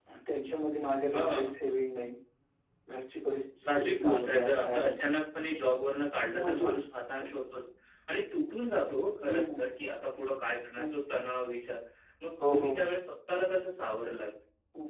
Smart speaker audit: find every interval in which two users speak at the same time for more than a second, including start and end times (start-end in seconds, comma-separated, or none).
3.7-5.0